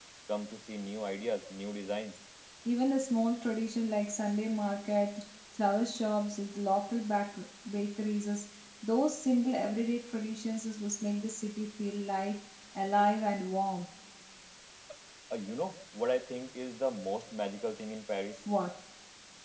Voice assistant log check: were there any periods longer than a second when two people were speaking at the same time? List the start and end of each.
none

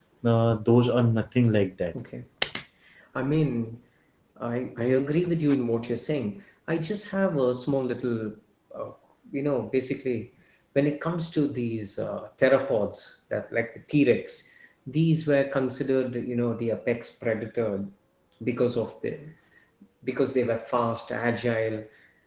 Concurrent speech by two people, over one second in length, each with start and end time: none

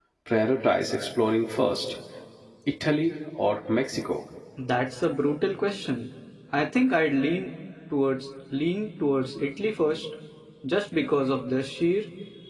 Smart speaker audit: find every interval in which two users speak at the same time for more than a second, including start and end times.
none

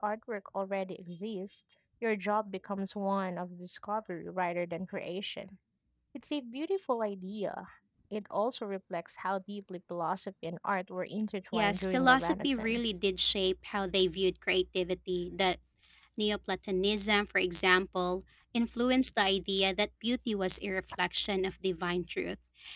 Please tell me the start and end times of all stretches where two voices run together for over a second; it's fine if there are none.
11.5-12.9

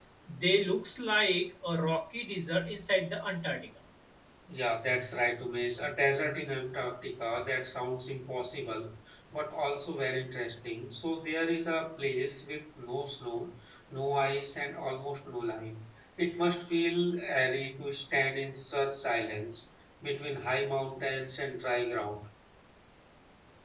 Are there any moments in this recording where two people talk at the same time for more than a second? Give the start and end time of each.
none

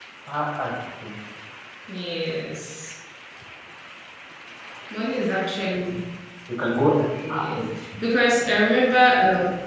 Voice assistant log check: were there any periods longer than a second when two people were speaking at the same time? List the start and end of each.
none

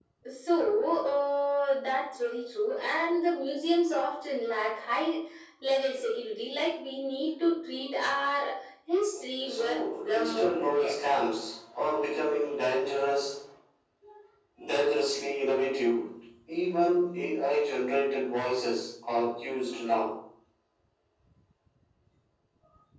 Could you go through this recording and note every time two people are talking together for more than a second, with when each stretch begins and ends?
9.4-10.9

